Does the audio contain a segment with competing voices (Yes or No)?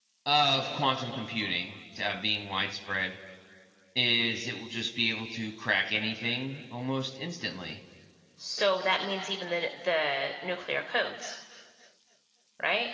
No